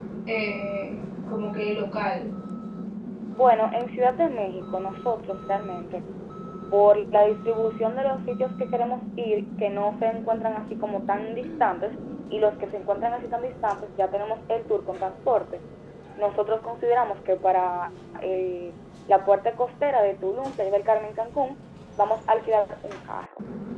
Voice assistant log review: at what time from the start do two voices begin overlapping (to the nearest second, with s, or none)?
none